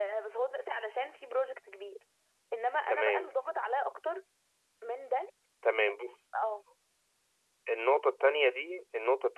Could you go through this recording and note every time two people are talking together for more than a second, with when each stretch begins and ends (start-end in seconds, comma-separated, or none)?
none